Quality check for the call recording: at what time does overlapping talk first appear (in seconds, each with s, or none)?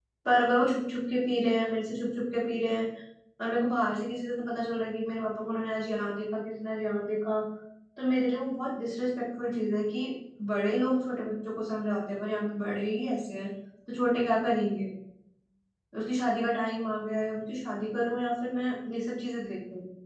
none